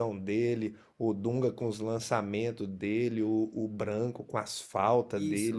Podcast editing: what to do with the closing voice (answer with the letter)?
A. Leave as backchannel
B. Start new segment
B